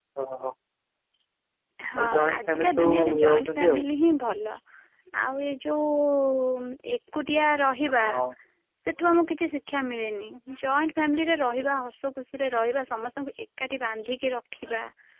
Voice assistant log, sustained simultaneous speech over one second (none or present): present